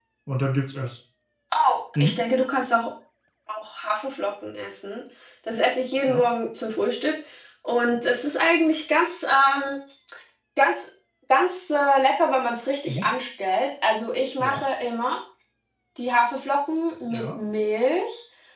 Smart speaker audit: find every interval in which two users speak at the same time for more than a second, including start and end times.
none

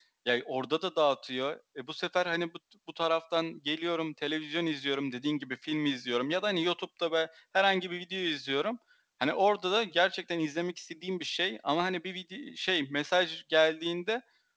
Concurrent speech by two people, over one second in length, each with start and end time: none

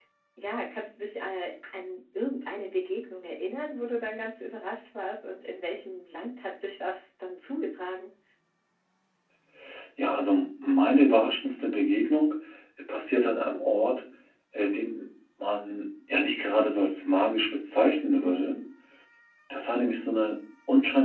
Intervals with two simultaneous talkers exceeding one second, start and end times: none

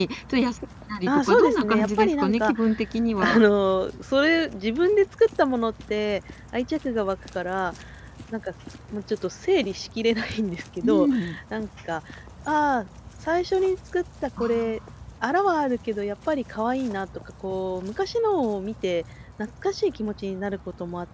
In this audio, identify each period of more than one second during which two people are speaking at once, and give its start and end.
1.1-2.5

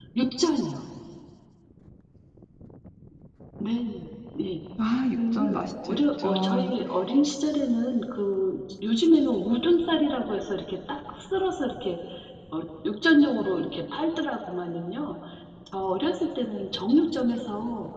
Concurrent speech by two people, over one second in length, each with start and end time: 5.3-6.7

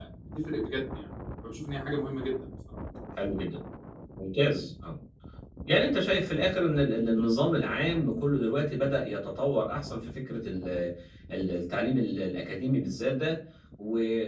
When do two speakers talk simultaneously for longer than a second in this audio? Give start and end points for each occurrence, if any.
none

